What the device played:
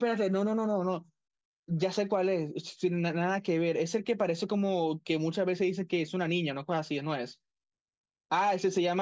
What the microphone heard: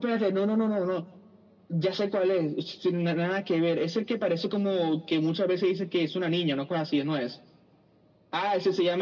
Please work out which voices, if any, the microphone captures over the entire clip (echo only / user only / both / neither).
echo only